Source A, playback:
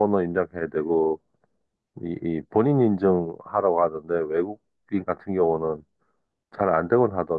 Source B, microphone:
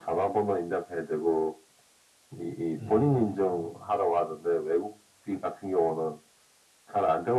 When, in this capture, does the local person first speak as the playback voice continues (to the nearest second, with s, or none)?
3 s